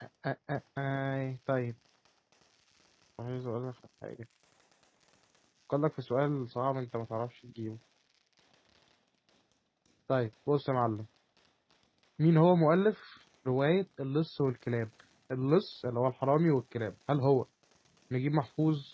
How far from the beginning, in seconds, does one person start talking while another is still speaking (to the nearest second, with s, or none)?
none